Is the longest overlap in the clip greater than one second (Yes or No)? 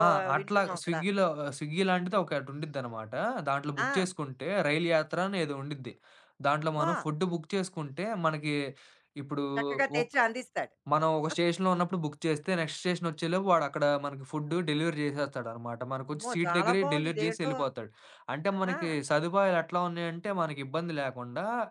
Yes